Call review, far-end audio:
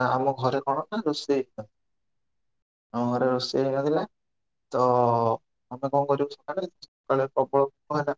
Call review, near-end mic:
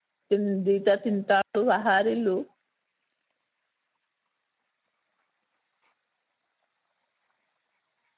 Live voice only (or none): ତିନ ଦିଟା ତିନିଟା ବେଳୁ ବାହାରିଲୁ